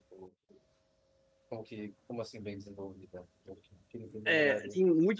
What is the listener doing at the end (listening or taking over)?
taking over